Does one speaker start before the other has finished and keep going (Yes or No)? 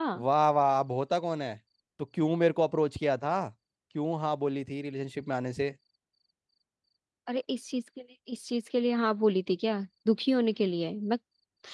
No